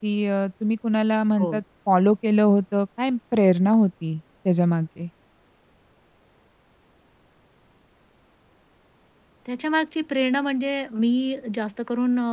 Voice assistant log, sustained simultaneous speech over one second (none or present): none